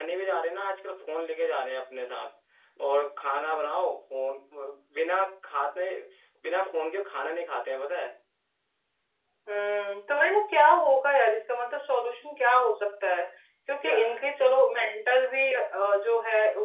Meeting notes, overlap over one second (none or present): none